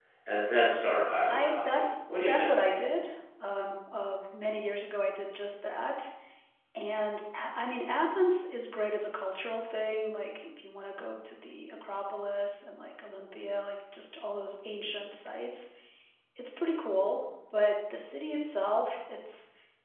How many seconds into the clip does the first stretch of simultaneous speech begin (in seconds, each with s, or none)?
1.3 s